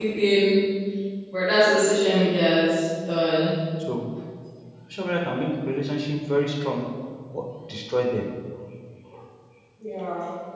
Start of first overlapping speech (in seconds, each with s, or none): none